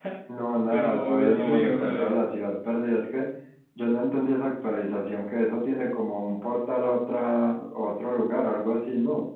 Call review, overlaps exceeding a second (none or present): present